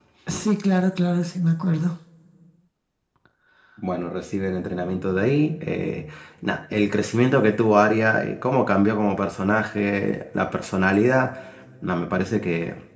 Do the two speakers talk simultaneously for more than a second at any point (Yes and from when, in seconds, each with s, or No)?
No